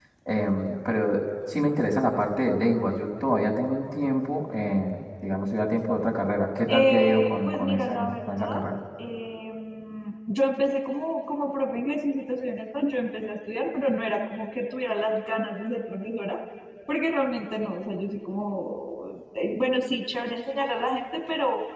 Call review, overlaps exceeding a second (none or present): present